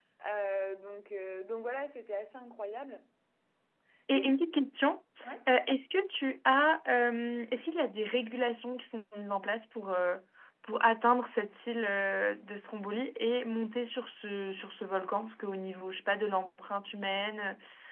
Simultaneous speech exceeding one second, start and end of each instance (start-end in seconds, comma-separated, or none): none